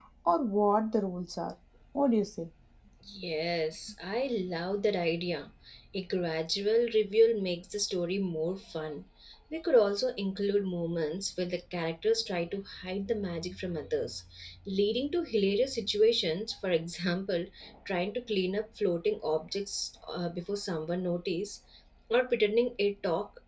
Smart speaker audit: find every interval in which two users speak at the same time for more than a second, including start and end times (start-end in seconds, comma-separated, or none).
none